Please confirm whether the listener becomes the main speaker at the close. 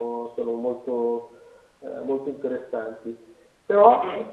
No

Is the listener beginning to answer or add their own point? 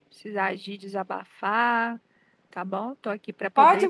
Yes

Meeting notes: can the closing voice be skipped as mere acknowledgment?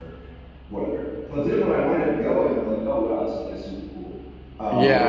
No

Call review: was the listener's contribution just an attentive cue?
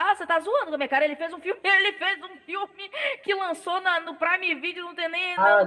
No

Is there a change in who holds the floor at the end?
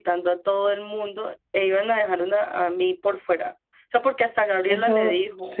Yes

